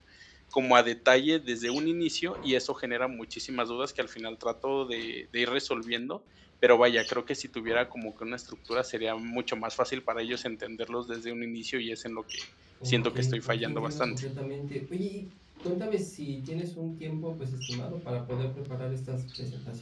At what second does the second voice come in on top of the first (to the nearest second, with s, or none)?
13 s